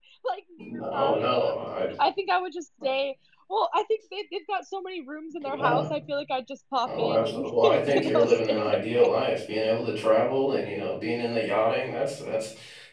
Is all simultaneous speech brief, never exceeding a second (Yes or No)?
No